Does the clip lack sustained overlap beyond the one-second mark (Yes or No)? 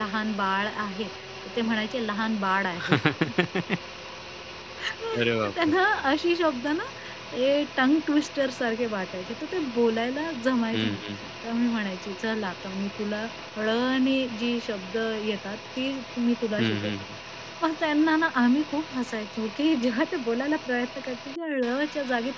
Yes